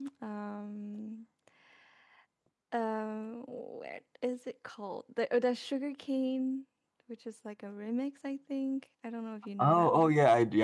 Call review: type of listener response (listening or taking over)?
taking over